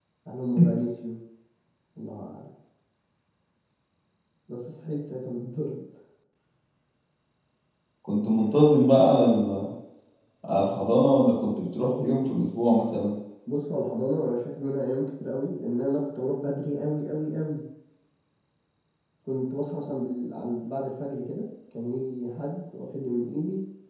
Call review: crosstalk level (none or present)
none